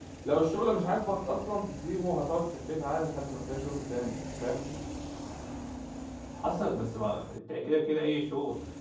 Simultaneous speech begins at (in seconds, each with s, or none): none